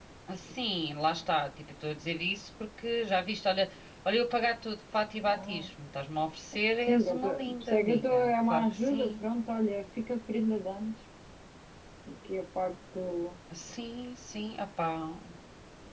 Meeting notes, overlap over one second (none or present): present